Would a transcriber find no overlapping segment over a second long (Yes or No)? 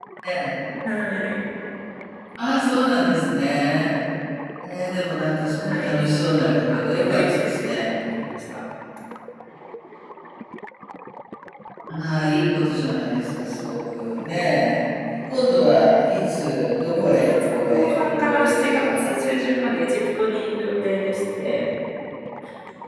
No